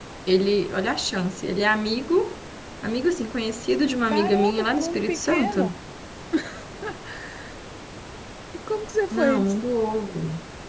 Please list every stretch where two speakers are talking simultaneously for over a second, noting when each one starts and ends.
4.1-5.7

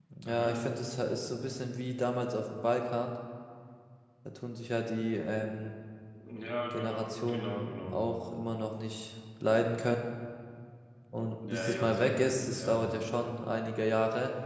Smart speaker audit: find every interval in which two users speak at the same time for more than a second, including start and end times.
6.7-8.2, 11.5-13.0

